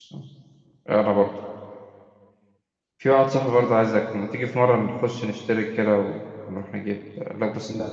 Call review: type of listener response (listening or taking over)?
listening